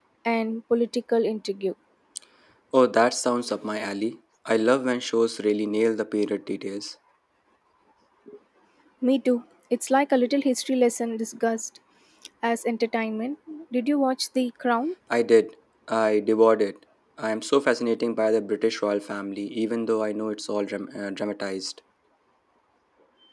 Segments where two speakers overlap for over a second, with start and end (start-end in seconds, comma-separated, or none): none